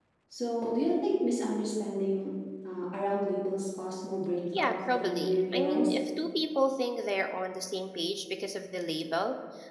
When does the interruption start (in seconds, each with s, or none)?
4.5 s